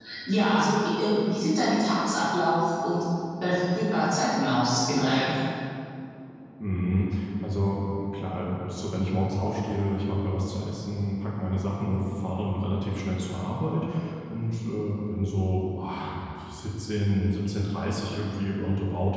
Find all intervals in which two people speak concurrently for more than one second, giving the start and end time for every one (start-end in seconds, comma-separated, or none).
none